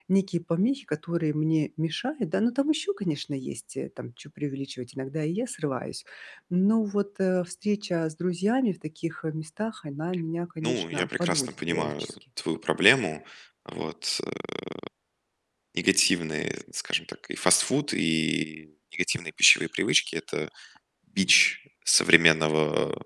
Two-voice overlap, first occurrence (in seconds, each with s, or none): 10.6 s